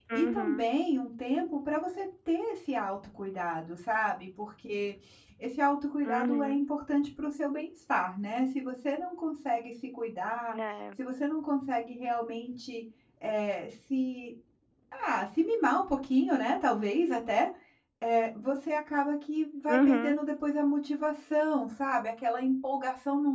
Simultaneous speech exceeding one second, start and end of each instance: none

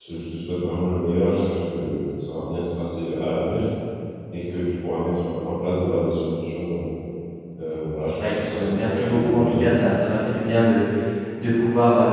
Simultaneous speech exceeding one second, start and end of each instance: 8.2-9.8

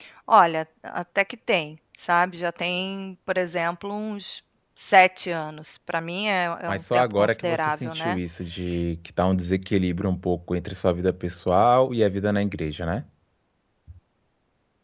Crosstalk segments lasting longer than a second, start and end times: 6.7-8.2

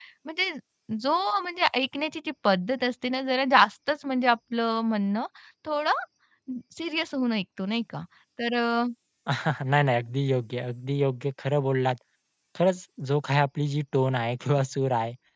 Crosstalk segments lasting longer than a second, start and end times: none

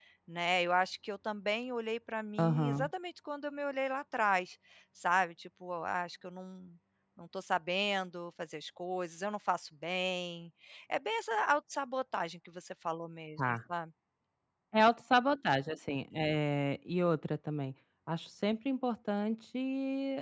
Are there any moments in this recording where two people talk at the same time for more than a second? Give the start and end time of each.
none

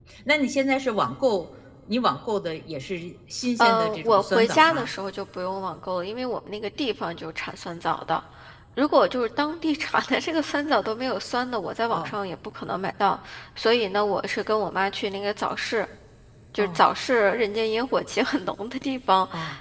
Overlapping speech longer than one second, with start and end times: 3.6-4.9

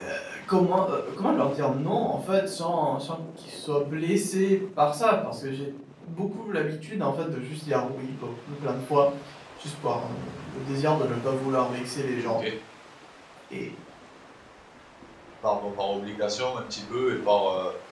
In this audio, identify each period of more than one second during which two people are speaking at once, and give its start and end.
none

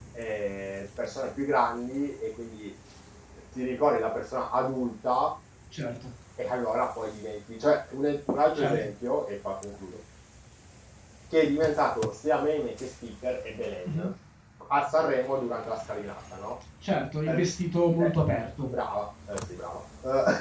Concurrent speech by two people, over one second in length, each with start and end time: none

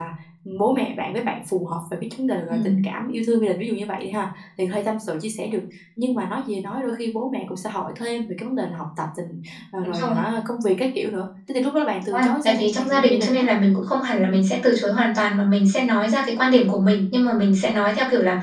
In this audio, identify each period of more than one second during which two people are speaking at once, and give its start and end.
12.1-13.4

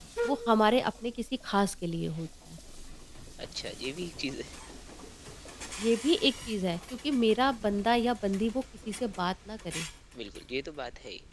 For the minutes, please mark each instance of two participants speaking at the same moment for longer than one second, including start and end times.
none

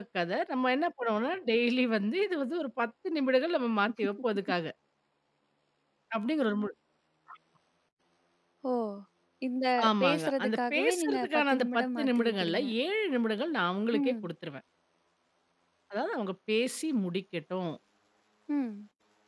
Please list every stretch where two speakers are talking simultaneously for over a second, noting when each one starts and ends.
10.0-12.6

